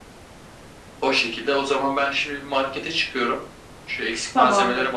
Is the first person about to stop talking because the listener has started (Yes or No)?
No